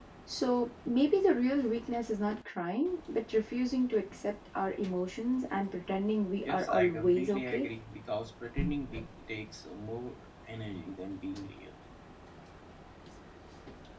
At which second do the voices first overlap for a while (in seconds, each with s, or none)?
6.4 s